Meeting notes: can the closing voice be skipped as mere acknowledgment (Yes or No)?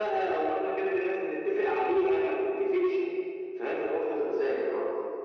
No